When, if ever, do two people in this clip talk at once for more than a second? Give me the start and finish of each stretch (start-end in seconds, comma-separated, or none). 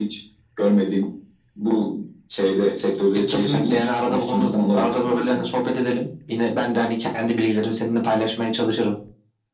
3.1-5.5